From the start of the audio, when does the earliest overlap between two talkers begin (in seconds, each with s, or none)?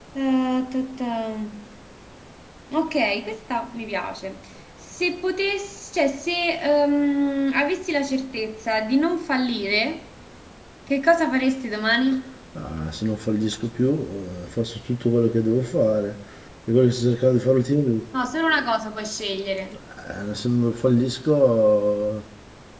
none